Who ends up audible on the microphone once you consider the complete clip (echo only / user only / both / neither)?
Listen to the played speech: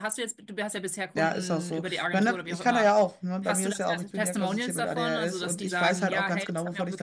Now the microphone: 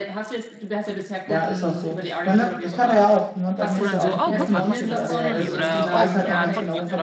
both